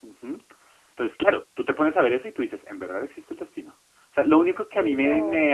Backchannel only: Yes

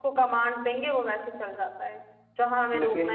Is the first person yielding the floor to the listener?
No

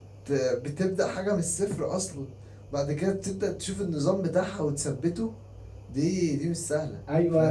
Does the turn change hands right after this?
Yes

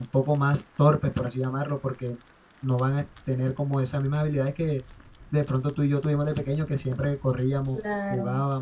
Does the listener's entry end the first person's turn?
No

